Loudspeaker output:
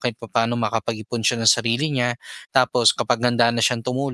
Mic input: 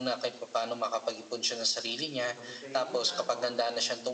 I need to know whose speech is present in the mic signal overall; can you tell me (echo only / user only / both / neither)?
both